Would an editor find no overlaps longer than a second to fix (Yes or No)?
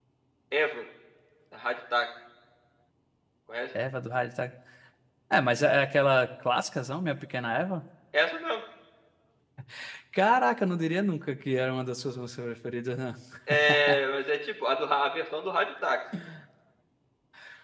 Yes